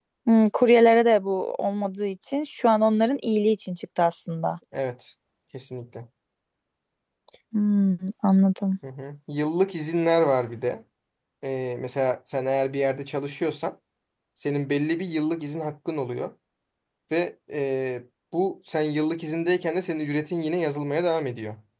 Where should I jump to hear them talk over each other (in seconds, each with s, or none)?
none